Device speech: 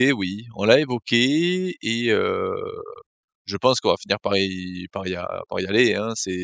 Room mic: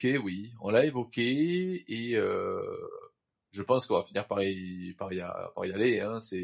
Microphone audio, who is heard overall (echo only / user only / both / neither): echo only